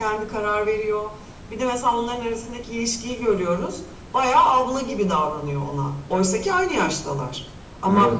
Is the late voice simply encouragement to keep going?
Yes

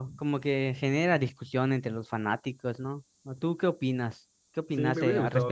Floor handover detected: Yes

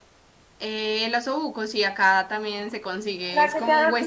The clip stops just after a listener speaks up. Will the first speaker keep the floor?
No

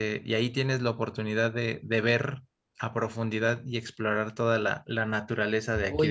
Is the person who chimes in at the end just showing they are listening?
No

